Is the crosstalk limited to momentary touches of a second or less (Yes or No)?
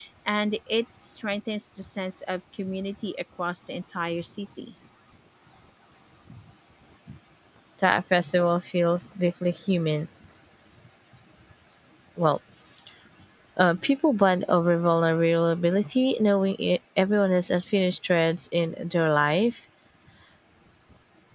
Yes